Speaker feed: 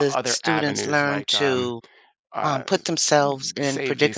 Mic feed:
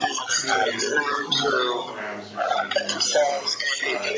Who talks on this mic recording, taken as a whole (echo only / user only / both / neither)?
both